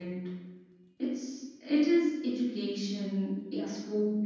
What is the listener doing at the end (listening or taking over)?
listening